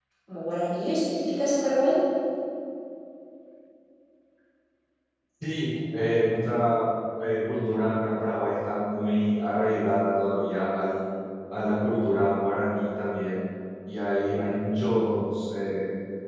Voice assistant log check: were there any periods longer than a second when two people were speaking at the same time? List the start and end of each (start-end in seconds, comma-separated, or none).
none